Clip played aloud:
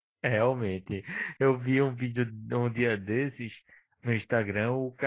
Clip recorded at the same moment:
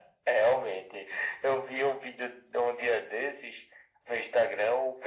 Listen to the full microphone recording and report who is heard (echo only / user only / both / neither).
echo only